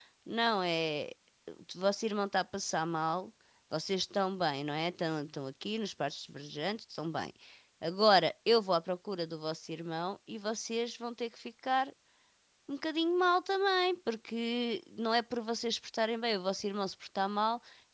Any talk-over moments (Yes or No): No